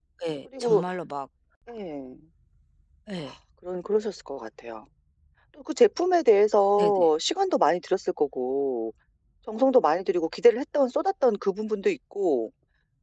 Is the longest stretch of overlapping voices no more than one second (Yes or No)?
Yes